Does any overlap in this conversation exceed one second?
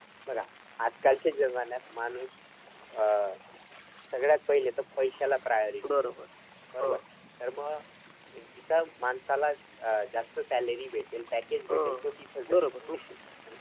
No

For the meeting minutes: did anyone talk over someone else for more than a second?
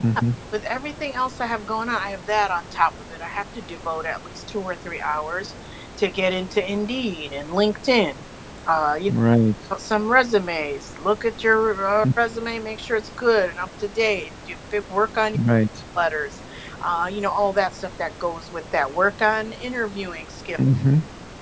No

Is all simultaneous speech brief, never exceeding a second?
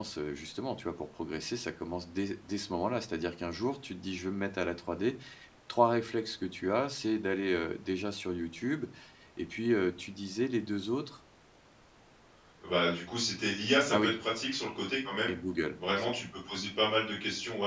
Yes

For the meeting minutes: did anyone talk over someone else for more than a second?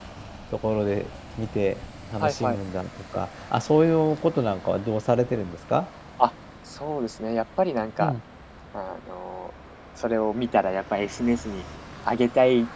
No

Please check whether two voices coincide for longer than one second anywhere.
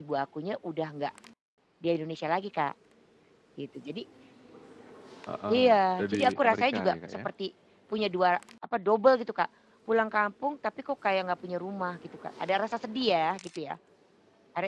Yes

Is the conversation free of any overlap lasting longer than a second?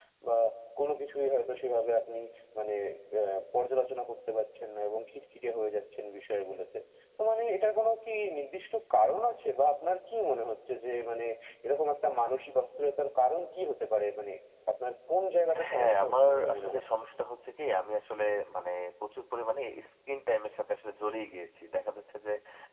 No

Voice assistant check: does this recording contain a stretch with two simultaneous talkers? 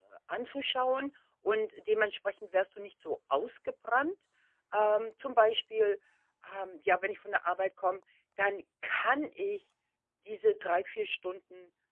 No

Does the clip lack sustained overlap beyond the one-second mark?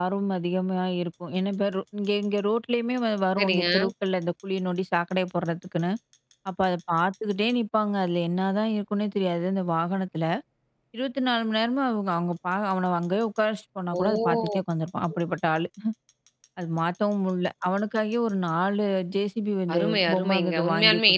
No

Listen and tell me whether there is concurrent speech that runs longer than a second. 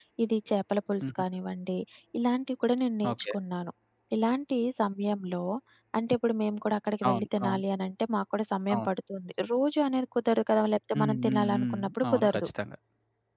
Yes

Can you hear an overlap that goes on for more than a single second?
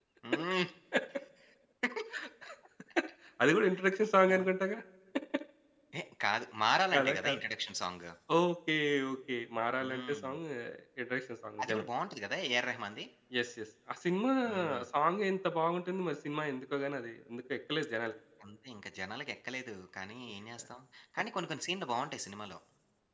No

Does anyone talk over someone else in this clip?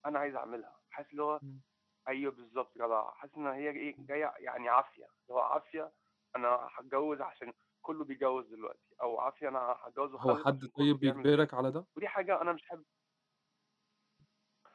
Yes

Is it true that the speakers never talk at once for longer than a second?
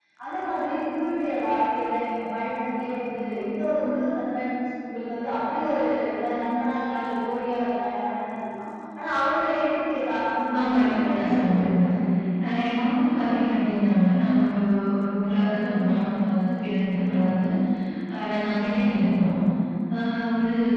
No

